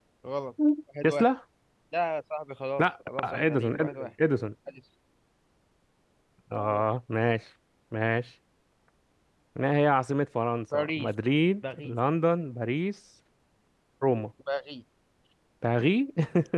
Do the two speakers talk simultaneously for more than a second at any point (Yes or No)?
Yes